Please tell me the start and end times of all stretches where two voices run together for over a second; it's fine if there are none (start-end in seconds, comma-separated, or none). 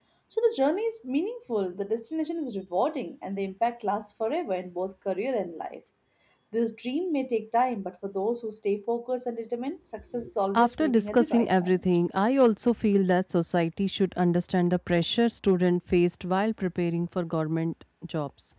10.5-11.8